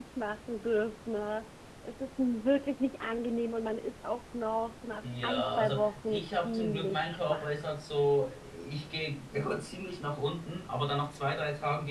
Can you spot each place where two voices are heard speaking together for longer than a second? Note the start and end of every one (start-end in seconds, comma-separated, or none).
5.0-7.5